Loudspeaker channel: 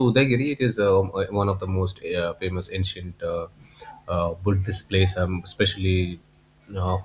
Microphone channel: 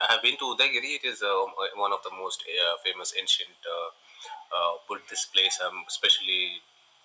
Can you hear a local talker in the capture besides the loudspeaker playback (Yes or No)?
No